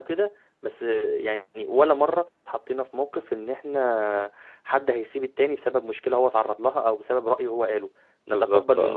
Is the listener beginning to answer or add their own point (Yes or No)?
No